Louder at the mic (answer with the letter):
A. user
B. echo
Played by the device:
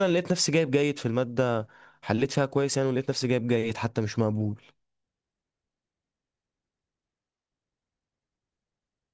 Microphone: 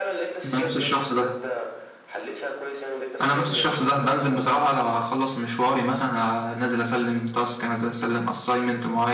A